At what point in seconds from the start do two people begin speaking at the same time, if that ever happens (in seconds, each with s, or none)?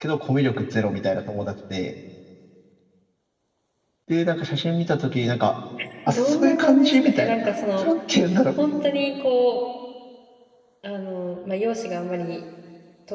6.1 s